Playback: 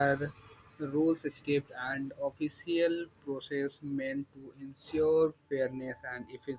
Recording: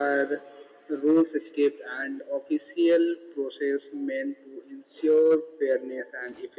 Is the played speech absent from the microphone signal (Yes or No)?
No